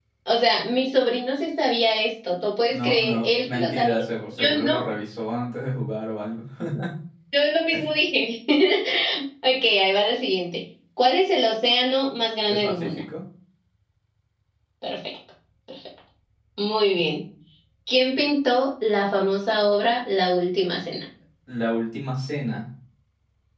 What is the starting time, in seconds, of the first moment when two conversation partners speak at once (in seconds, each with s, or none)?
2.7 s